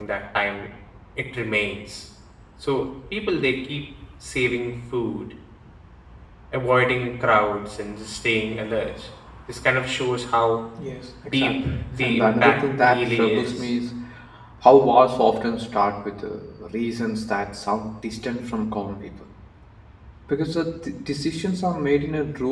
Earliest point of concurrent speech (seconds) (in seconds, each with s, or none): 11.3 s